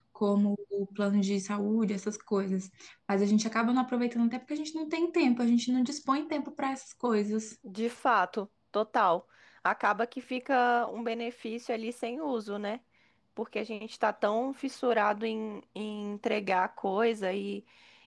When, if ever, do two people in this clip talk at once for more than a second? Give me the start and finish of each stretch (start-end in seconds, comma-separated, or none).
none